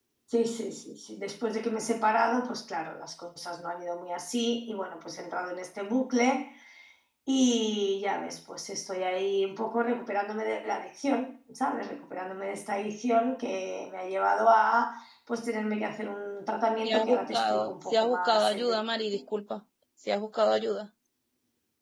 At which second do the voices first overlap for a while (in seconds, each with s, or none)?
16.8 s